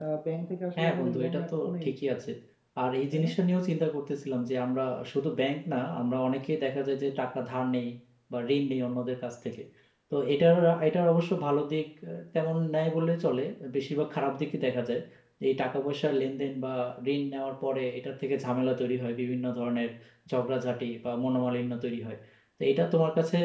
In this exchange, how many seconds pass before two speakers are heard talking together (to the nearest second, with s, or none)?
1 s